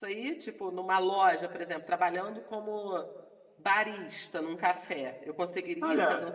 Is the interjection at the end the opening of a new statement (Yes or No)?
Yes